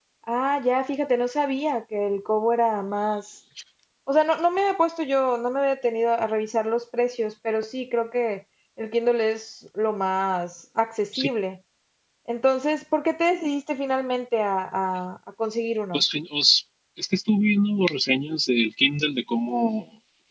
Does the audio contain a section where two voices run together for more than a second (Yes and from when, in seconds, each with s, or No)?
No